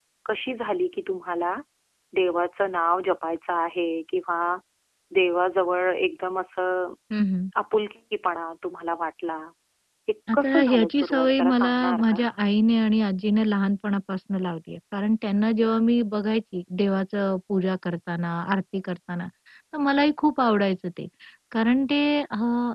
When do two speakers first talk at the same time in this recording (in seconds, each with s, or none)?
10.3 s